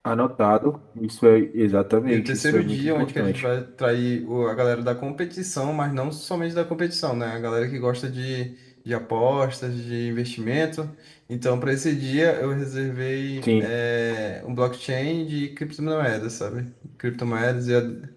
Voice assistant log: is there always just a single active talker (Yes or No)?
No